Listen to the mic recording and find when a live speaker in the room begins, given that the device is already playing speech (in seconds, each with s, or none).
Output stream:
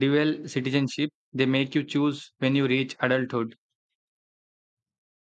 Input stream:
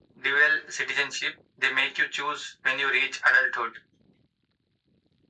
none